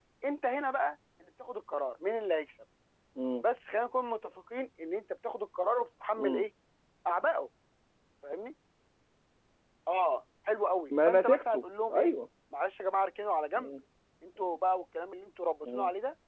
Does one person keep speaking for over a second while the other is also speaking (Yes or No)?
Yes